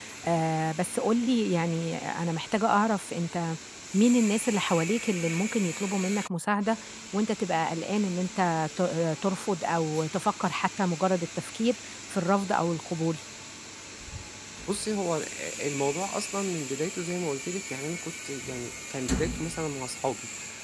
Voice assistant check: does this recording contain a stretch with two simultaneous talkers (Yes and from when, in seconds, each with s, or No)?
No